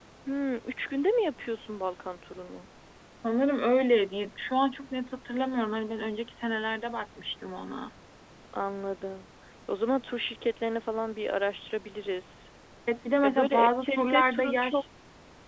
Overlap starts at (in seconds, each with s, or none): 13.2 s